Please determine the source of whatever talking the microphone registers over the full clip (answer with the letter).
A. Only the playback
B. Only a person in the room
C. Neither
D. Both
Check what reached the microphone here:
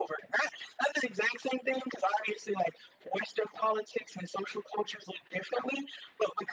A